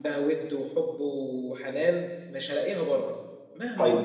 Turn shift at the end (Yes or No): No